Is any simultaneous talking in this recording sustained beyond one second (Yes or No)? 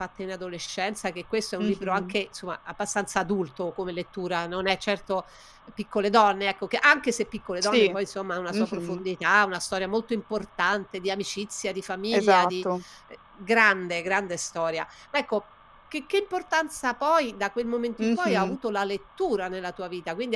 No